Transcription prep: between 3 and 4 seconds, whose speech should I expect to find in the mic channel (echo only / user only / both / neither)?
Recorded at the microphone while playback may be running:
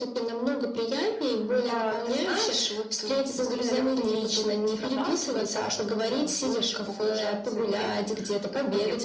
echo only